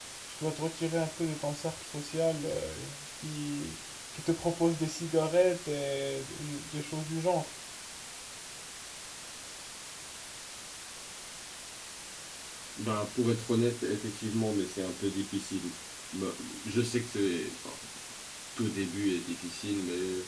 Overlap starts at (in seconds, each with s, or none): none